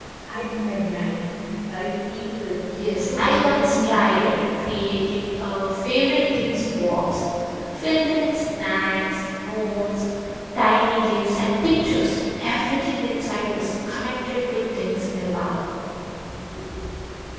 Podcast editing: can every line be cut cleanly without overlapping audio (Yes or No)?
No